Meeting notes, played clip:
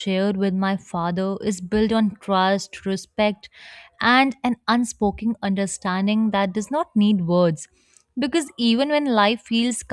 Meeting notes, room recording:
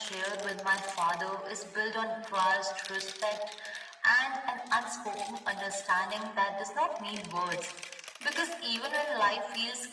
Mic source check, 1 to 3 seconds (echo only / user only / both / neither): echo only